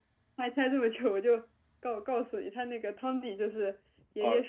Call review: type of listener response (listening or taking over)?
listening